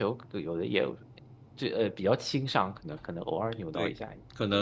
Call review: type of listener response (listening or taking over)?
taking over